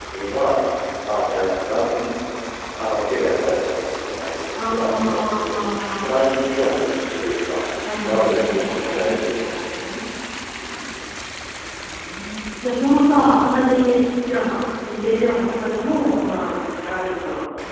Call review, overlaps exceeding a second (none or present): present